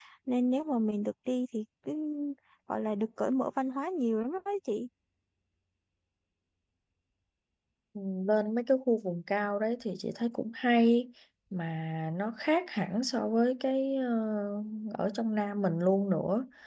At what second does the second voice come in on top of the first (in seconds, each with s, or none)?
none